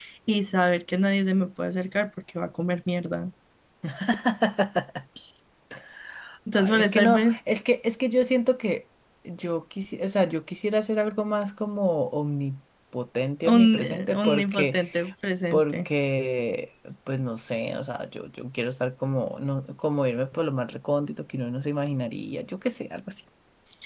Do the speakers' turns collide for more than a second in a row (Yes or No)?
Yes